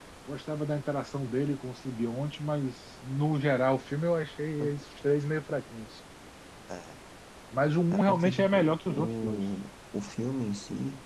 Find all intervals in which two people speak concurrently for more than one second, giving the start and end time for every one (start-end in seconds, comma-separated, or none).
7.9-9.4